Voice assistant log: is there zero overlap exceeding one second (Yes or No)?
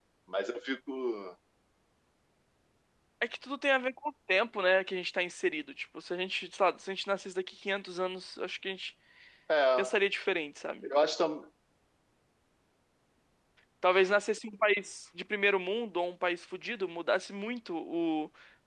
Yes